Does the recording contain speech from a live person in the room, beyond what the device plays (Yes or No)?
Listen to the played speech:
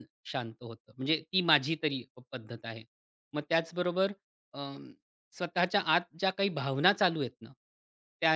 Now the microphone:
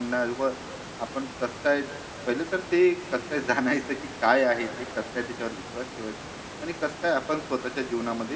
Yes